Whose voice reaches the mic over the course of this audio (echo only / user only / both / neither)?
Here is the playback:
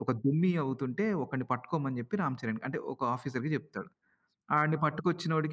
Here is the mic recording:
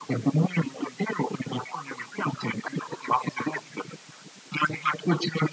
echo only